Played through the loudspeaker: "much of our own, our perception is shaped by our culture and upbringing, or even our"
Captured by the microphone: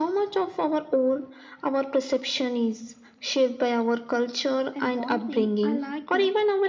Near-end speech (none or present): present